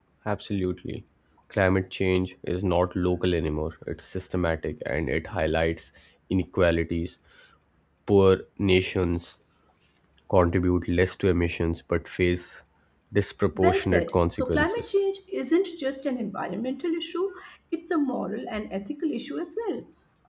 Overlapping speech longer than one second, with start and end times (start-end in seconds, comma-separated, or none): 13.6-14.9